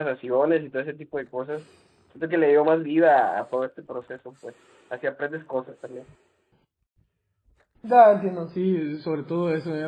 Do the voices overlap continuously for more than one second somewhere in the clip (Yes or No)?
No